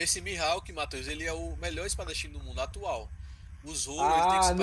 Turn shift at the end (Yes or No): Yes